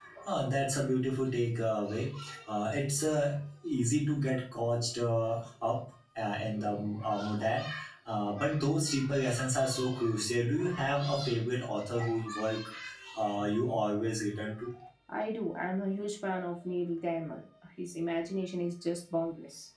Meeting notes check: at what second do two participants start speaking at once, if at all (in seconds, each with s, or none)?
none